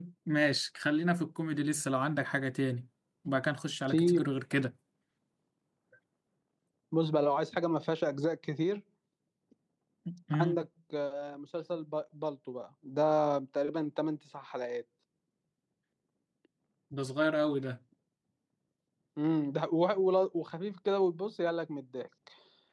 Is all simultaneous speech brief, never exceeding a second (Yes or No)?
Yes